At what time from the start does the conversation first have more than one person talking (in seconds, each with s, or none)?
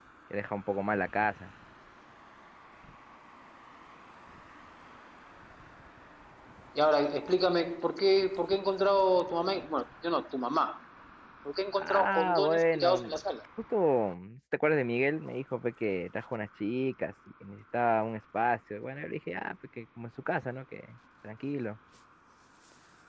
11.7 s